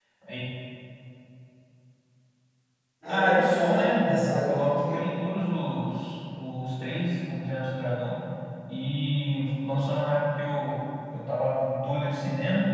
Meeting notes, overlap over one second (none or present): present